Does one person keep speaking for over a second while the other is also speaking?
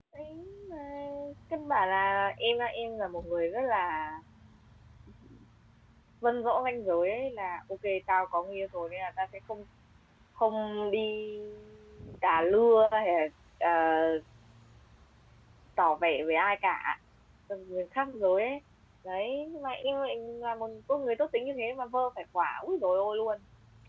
No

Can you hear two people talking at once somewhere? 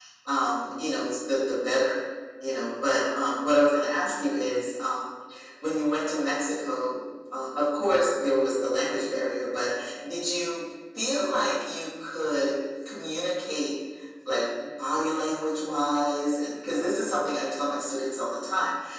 No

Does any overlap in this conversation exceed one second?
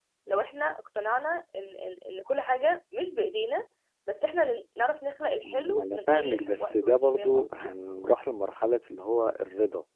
Yes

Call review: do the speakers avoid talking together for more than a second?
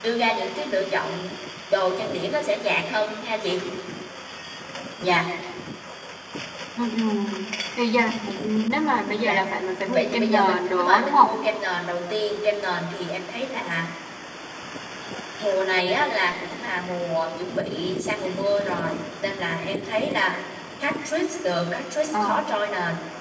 No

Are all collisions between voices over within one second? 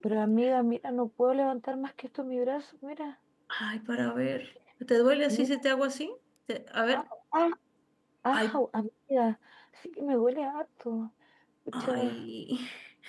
Yes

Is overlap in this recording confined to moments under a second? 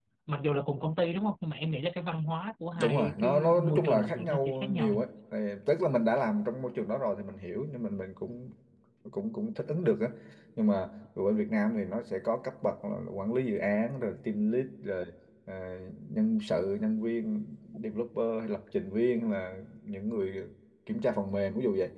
No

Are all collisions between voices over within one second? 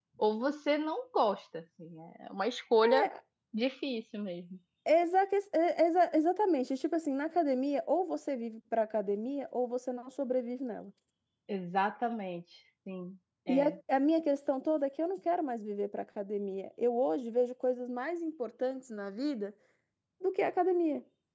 Yes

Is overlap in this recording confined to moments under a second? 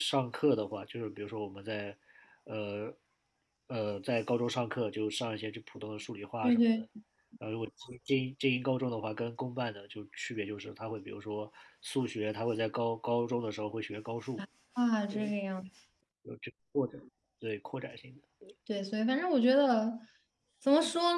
Yes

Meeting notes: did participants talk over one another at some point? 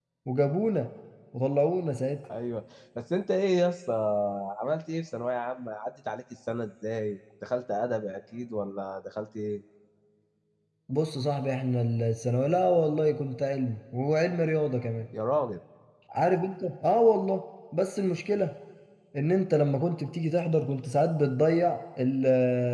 No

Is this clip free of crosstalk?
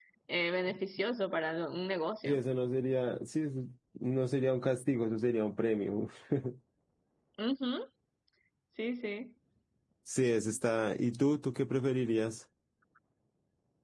Yes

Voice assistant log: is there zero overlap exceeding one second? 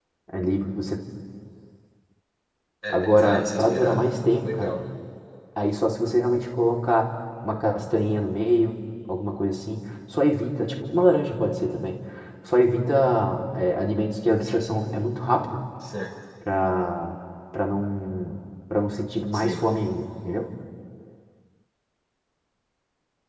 No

